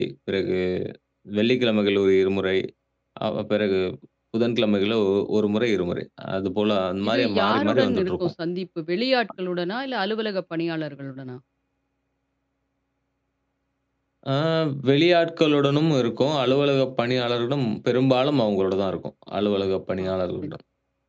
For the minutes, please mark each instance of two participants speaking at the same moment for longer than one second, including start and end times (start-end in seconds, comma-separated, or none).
7.1-8.3